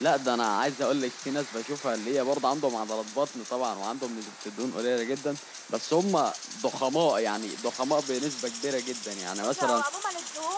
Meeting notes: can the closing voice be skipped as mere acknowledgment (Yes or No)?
No